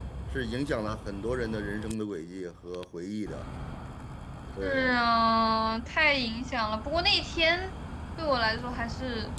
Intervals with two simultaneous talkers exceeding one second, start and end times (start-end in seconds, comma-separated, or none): none